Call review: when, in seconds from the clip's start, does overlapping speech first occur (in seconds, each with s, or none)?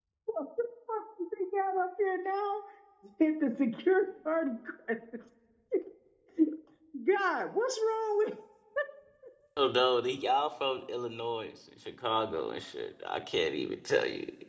none